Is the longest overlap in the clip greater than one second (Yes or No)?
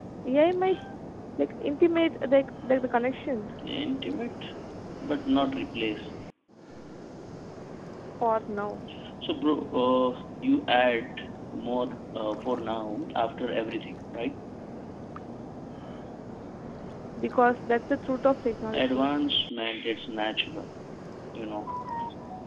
No